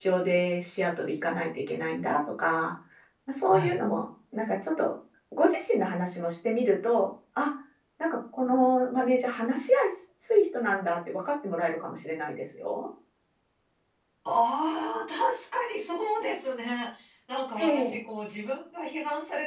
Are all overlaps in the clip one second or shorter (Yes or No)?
Yes